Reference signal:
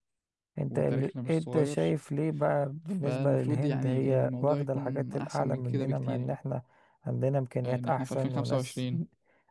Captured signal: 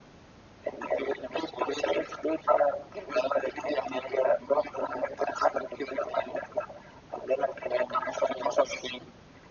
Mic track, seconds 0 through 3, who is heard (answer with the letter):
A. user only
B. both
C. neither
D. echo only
D